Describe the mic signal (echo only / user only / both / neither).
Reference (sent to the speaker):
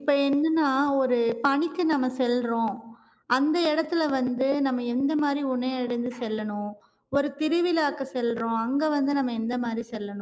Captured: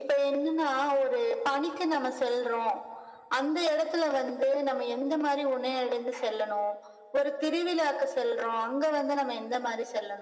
echo only